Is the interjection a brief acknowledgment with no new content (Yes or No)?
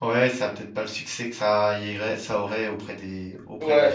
No